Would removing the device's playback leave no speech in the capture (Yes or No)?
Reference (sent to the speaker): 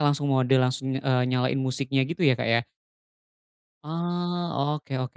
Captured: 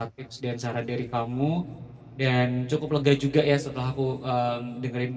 No